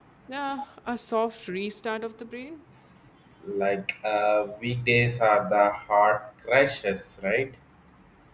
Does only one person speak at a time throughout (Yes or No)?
Yes